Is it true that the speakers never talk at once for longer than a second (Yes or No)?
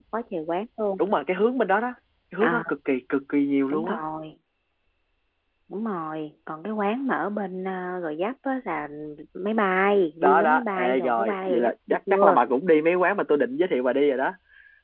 No